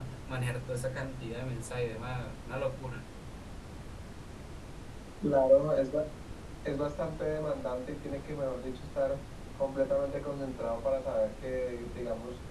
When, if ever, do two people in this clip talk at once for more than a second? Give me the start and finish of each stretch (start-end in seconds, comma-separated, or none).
none